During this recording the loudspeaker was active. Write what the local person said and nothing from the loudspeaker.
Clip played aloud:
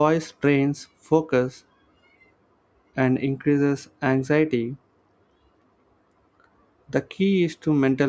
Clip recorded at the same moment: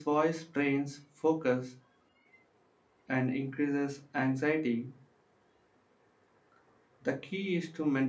none

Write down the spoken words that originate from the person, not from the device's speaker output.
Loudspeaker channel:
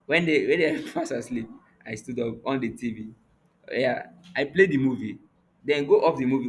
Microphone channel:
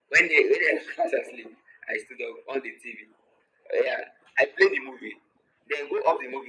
none

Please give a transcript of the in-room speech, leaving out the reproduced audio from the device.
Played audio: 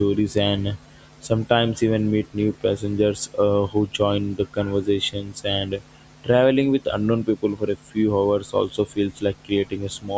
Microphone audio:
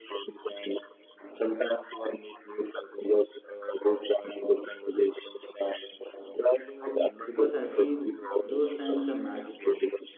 Because I feel those times are magical.

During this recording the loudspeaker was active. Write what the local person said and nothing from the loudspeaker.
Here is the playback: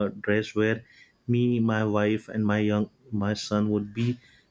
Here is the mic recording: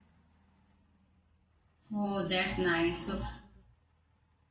Oh, that's nice. So,

